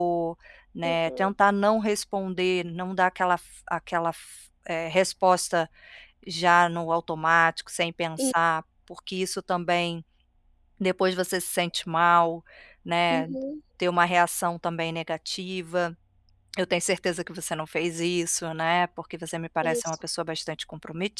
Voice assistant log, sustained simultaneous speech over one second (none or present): none